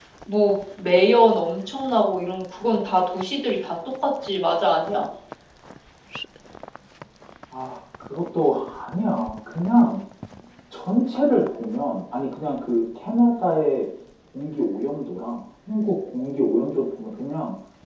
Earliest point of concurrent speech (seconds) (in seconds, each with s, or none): none